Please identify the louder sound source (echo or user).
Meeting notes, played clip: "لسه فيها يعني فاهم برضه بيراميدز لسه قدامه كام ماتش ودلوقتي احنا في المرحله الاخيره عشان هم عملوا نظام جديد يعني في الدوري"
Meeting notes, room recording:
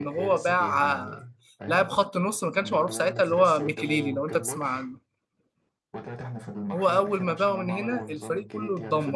user